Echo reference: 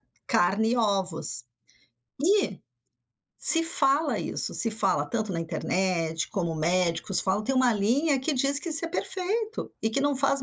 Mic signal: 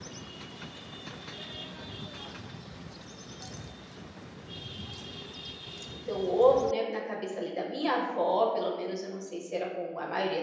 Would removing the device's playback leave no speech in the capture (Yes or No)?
No